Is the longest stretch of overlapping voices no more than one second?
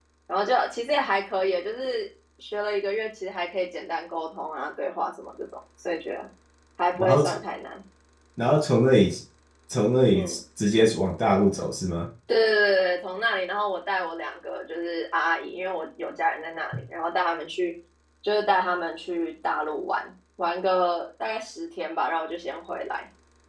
Yes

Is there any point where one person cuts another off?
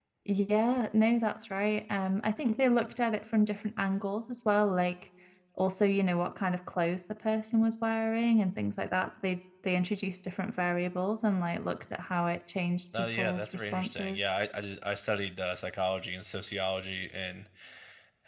Yes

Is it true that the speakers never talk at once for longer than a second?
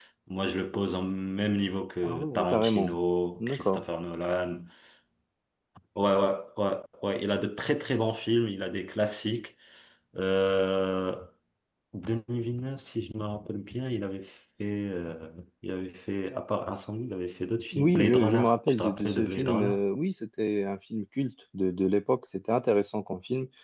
No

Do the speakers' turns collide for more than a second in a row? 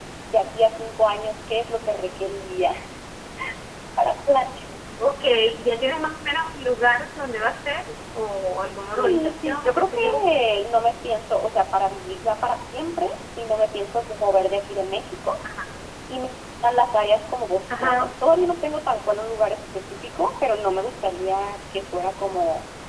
Yes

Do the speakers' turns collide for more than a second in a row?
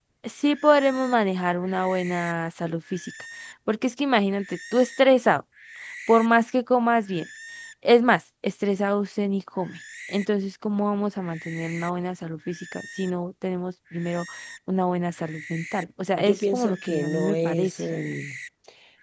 Yes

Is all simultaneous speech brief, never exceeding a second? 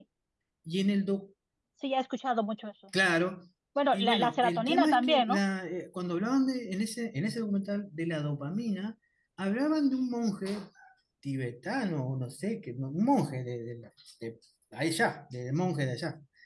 No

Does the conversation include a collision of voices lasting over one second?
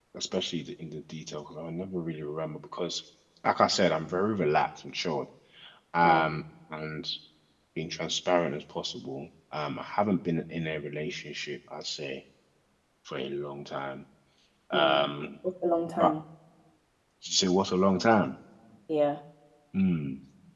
No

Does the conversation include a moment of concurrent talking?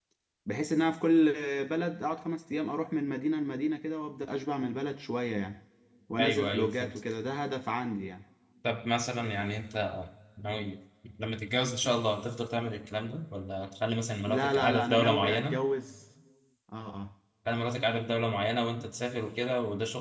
Yes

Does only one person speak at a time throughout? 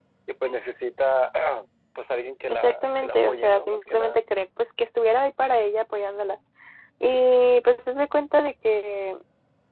No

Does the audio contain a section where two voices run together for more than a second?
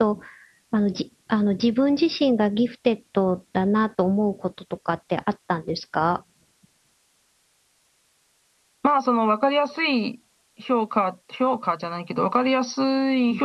No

